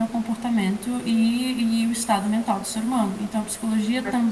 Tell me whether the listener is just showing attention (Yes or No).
Yes